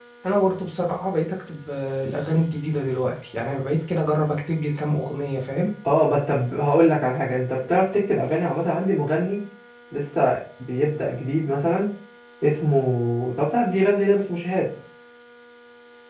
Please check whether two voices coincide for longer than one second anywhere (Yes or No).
No